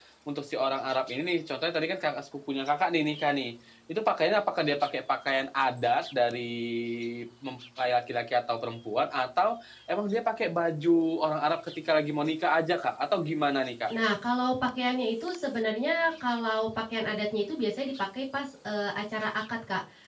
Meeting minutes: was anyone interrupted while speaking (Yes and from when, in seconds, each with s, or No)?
No